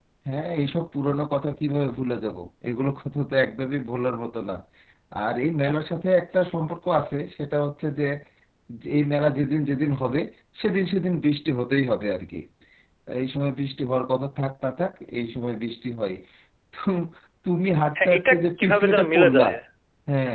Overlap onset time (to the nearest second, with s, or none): 18 s